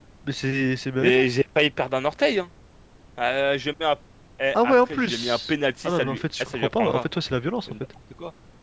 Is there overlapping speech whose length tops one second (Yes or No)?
Yes